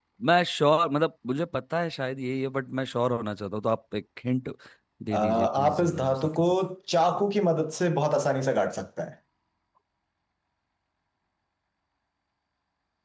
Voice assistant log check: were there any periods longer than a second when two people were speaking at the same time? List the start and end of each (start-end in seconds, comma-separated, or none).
5.1-6.4